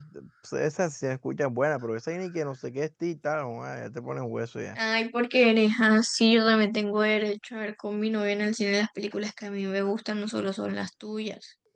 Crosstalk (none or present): none